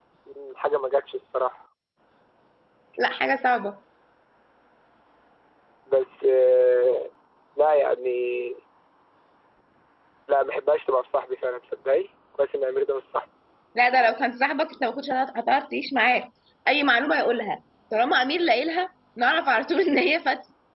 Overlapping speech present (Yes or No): No